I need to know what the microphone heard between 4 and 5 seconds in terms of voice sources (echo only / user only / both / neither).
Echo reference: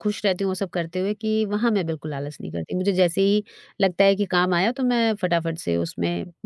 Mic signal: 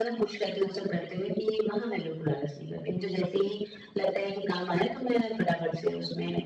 echo only